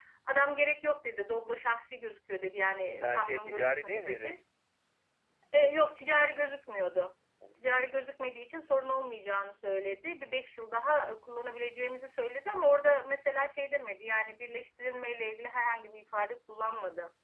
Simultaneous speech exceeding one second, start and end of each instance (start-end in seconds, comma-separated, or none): 3.0-4.4